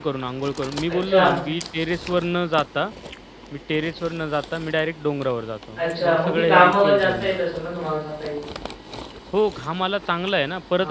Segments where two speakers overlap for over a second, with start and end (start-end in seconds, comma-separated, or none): 5.8-7.4